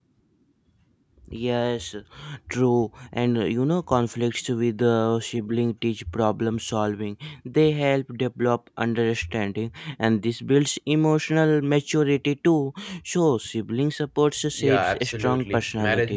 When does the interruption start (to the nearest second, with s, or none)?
14 s